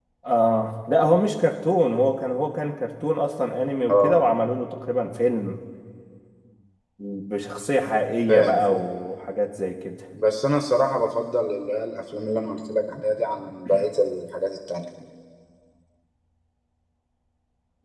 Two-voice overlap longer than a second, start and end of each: none

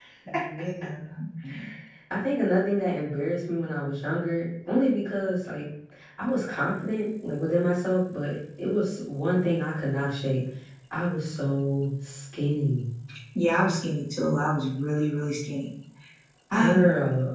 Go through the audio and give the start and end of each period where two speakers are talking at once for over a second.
none

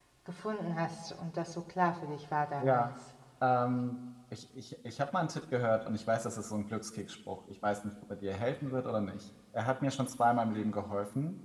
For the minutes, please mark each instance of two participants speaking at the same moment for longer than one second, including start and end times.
none

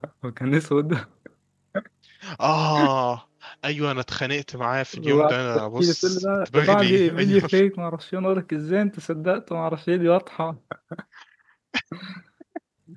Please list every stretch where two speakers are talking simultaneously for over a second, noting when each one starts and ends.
4.9-7.5

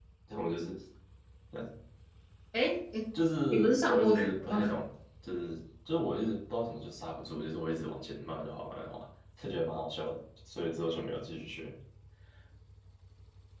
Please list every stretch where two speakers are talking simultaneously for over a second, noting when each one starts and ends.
3.5-4.7

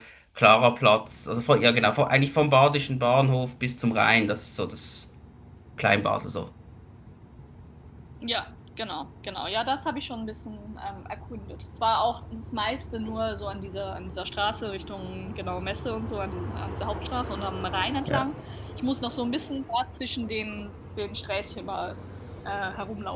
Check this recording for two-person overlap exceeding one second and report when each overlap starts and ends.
none

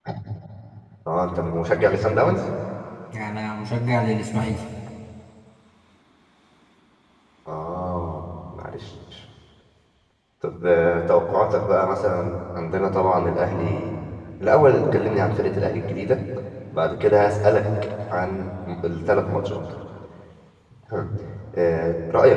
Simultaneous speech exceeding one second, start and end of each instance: none

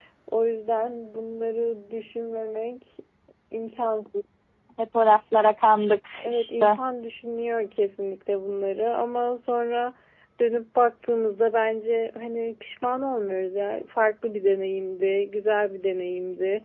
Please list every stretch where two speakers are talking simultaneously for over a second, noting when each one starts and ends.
none

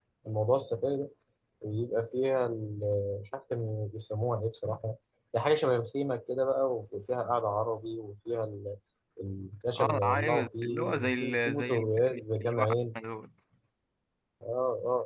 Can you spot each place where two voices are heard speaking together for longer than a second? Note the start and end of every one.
9.8-12.7

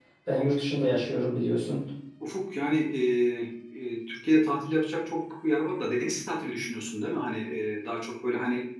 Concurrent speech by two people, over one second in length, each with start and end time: none

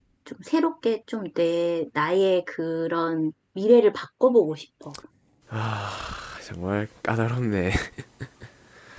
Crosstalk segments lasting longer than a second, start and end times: none

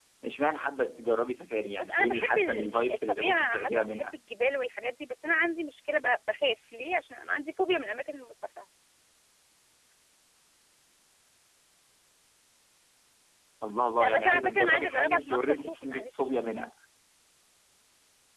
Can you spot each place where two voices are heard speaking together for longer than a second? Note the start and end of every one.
1.8-4.0, 14.0-16.2

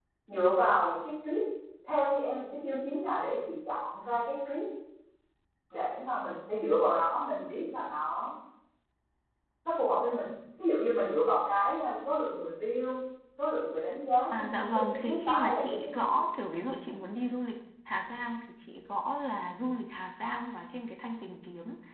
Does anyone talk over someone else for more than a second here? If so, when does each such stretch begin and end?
14.4-16.1

